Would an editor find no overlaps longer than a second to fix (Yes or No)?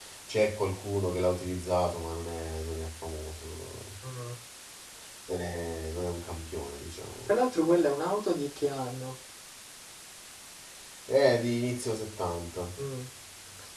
Yes